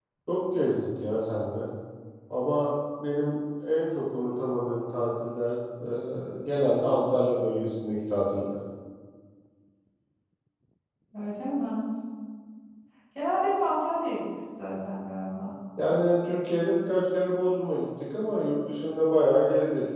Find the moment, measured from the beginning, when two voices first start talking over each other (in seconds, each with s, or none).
none